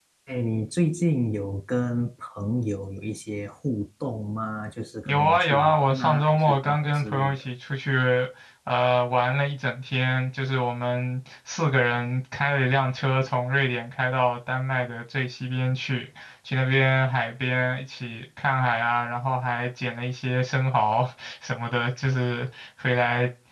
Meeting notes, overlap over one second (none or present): present